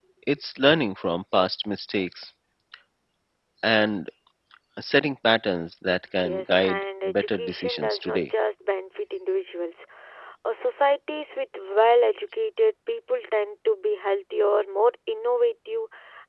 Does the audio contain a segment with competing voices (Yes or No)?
Yes